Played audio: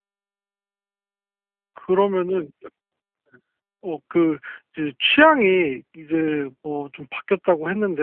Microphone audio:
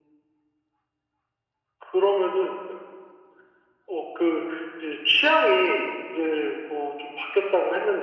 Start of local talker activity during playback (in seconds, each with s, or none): none